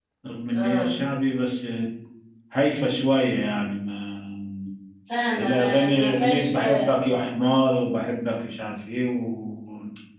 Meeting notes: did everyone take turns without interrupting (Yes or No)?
No